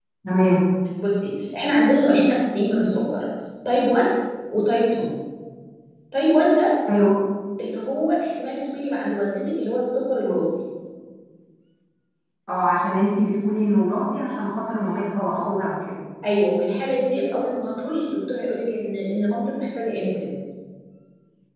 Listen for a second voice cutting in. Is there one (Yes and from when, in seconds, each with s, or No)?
No